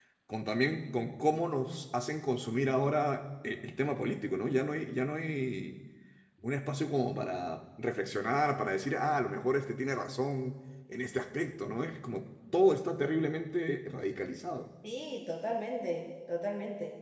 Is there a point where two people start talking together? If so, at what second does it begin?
none

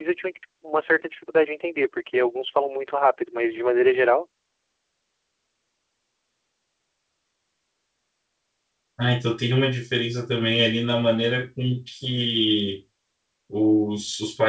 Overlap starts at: none

